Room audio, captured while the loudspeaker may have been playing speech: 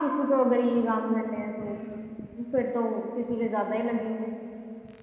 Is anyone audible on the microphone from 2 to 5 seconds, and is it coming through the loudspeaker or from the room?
echo only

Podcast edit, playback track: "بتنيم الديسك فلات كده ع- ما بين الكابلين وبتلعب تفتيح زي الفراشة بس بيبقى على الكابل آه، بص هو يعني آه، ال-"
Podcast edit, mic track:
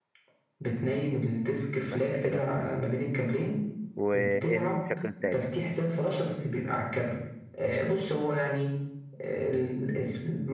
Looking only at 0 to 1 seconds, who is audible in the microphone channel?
echo only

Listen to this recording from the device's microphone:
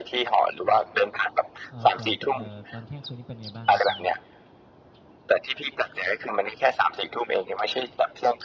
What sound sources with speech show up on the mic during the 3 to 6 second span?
both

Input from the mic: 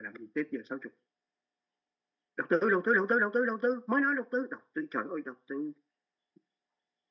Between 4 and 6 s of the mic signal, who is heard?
echo only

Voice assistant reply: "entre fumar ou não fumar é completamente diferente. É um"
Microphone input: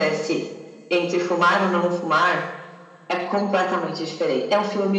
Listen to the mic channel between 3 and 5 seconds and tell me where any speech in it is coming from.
echo only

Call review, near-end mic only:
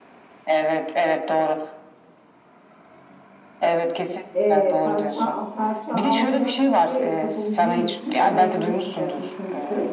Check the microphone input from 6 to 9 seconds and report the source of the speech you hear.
both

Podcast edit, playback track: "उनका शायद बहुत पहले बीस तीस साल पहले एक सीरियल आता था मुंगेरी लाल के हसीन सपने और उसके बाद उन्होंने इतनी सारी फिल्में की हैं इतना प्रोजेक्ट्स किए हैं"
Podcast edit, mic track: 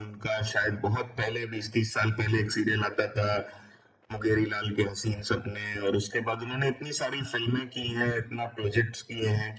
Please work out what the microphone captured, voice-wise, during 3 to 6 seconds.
echo only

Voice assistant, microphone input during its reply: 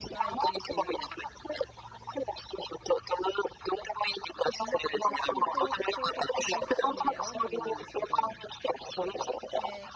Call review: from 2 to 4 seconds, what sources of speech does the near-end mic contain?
echo only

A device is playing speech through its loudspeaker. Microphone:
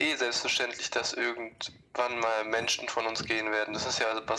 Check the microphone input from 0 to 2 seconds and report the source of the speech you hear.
echo only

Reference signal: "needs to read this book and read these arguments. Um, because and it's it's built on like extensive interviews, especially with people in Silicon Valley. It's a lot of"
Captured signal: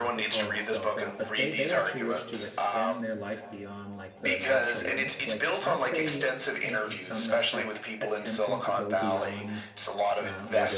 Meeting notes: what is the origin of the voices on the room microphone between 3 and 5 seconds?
both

